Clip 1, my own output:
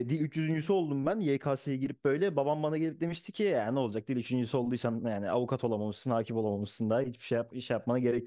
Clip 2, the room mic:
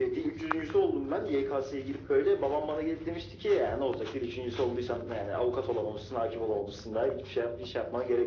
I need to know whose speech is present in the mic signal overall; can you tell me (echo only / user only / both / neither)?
echo only